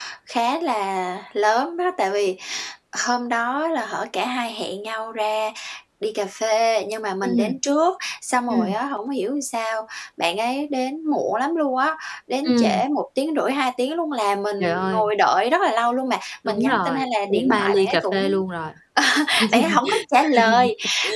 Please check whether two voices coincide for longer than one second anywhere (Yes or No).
Yes